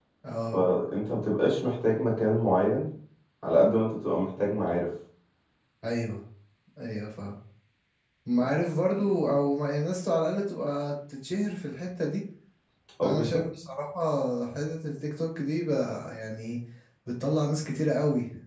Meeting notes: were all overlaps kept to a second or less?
Yes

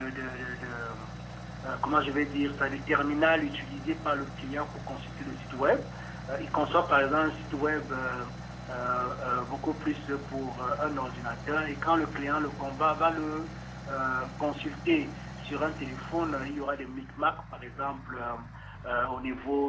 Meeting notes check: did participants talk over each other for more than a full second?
No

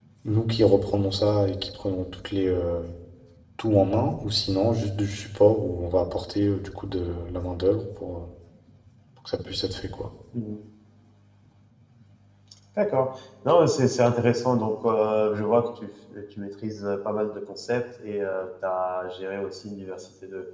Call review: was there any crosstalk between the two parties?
No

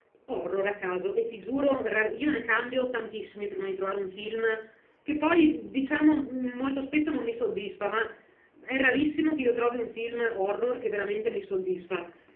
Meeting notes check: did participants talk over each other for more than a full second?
No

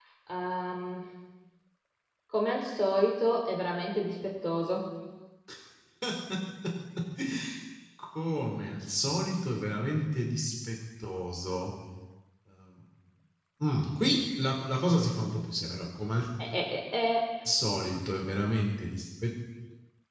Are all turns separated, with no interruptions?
Yes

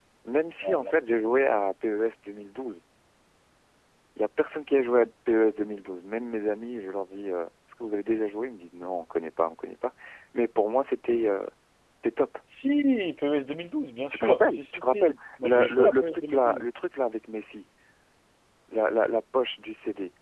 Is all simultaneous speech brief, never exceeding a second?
No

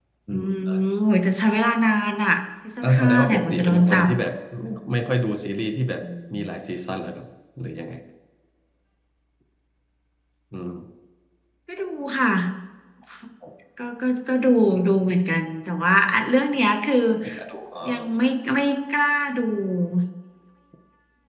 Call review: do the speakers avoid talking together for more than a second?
No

